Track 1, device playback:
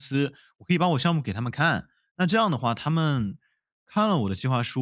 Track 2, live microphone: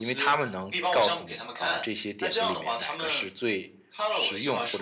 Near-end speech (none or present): present